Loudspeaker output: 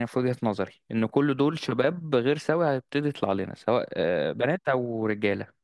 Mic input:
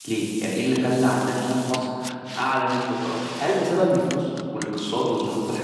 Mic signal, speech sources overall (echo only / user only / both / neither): user only